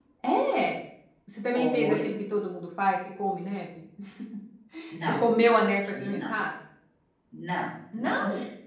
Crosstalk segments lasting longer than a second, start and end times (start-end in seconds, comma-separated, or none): none